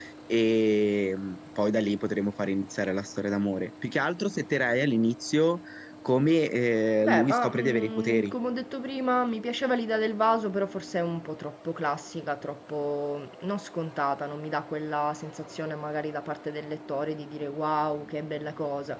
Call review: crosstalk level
present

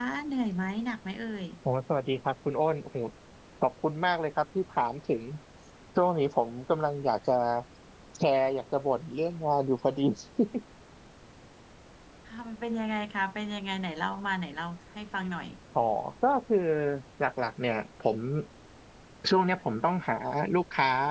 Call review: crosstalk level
none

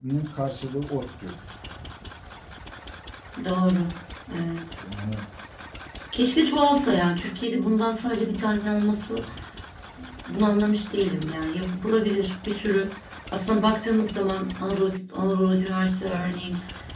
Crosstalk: none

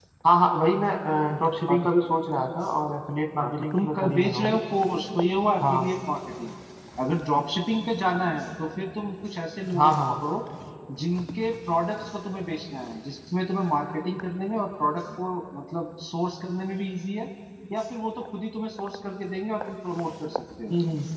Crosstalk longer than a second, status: present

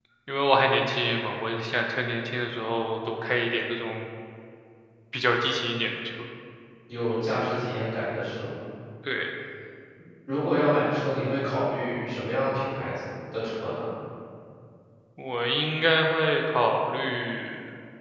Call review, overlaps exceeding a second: none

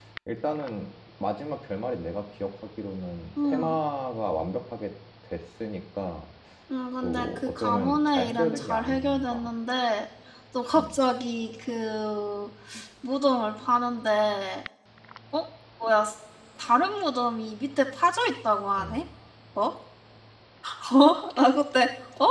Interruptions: present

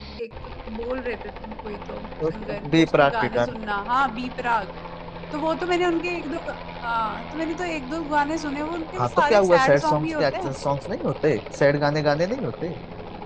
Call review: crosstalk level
present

